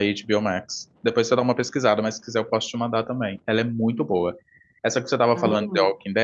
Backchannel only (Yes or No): Yes